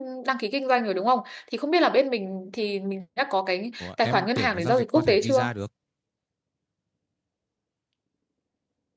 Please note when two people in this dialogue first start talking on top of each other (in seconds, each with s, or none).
3.8 s